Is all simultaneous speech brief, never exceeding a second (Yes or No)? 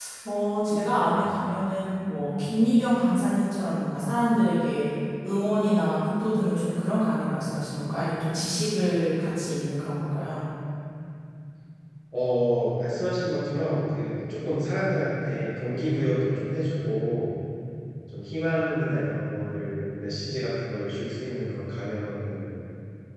Yes